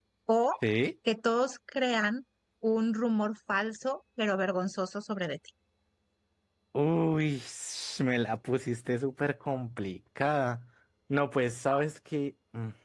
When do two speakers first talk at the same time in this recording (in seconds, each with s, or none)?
none